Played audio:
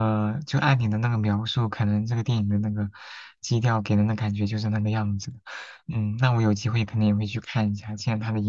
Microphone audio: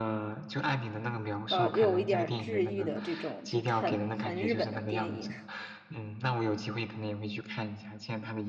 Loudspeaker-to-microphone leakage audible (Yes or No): Yes